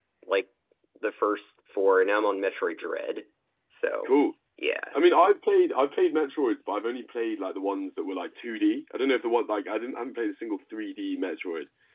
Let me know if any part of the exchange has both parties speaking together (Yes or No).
No